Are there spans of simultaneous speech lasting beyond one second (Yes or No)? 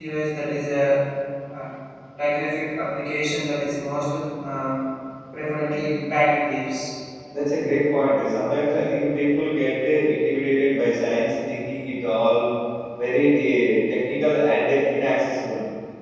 No